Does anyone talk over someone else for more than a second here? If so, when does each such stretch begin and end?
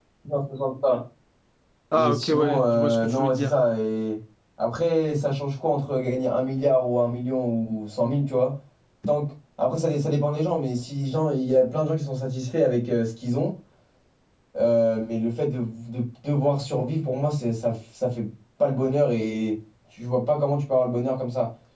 1.9-3.6

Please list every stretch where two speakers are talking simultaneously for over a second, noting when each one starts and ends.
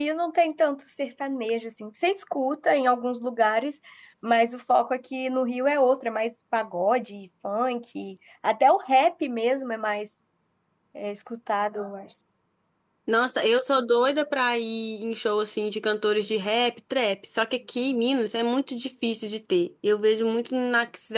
none

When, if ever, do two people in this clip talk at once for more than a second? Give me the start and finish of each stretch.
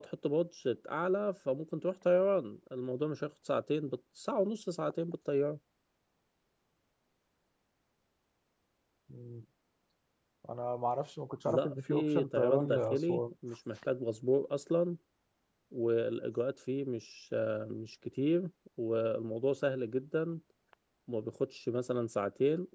11.4-13.2

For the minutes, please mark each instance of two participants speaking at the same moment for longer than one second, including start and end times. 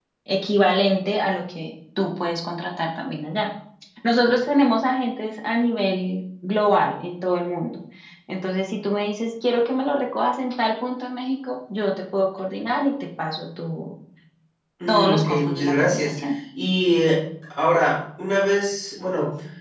14.9-16.1

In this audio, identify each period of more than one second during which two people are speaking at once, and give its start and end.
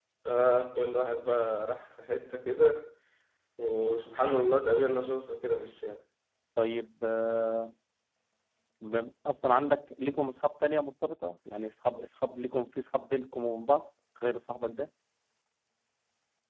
none

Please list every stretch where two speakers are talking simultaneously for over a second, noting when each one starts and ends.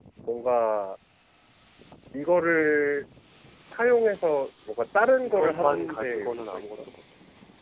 5.2-6.6

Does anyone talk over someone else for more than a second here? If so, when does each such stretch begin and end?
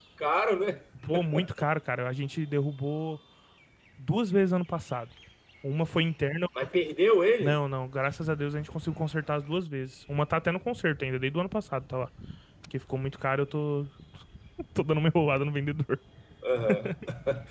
none

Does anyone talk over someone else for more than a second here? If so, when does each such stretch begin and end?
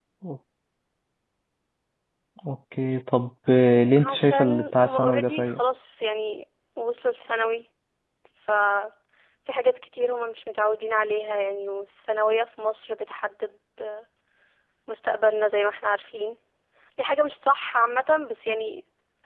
4.0-5.6

